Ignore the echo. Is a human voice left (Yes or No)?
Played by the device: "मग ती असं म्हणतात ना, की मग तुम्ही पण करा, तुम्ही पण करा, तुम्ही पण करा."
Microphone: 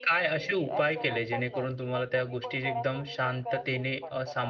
Yes